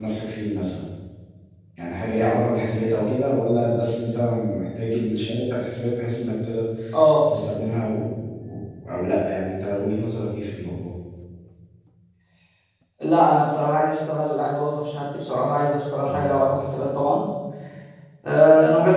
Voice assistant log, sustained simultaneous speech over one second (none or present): none